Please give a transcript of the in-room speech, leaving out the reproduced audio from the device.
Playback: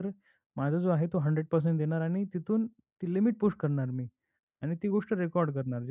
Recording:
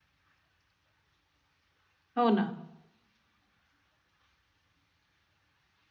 हो ना.

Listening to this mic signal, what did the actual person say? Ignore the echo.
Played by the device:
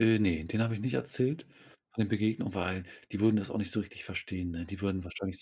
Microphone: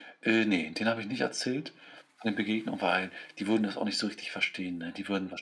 none

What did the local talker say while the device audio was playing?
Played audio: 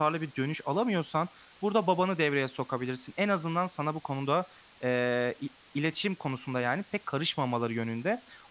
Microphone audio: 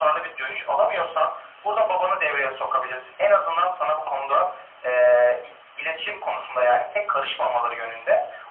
none

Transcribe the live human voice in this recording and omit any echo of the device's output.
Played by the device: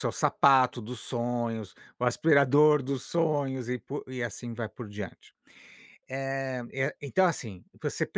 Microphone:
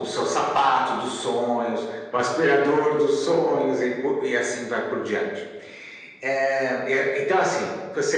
none

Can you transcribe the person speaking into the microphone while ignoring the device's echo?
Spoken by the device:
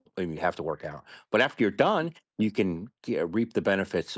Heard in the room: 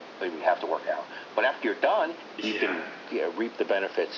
Yeah.

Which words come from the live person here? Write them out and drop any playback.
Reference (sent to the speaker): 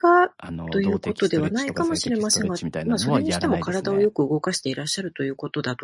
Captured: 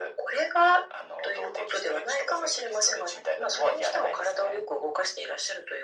none

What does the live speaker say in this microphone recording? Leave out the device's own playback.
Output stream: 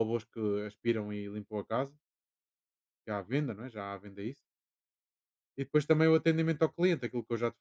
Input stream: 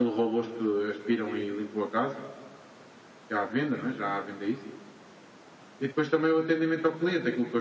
none

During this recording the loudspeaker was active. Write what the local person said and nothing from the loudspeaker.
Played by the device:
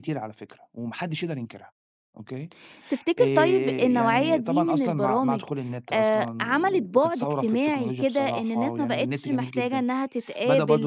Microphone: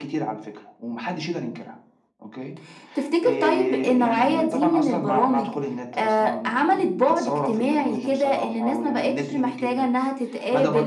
none

